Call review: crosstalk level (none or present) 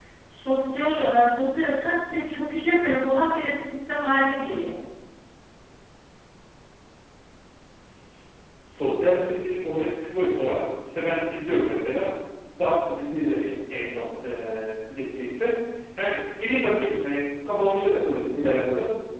none